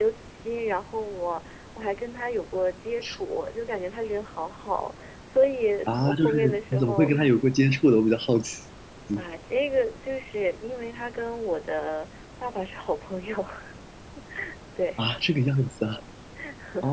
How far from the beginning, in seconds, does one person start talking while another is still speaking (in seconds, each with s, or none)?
5.9 s